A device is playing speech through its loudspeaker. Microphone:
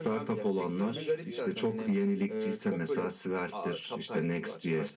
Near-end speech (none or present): present